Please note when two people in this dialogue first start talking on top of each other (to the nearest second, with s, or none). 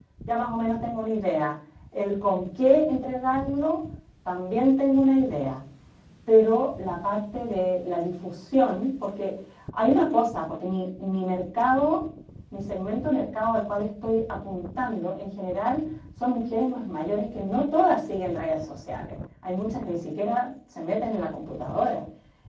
none